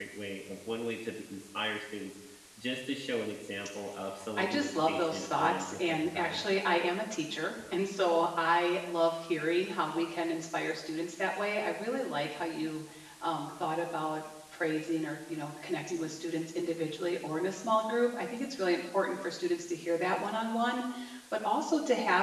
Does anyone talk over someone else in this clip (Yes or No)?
Yes